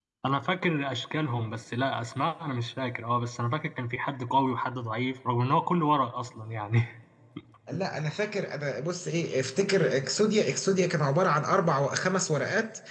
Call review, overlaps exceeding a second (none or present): none